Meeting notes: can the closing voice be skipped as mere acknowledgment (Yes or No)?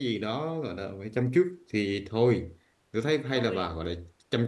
Yes